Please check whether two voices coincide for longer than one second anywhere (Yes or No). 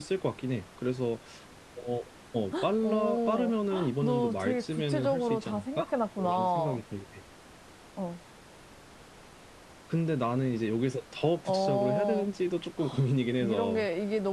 Yes